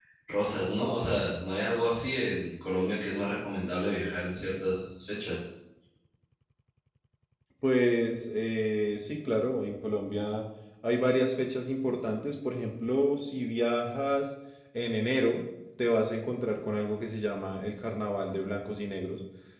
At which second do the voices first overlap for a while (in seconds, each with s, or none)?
none